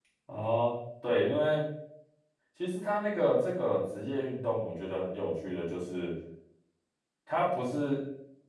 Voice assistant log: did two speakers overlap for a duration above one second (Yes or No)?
No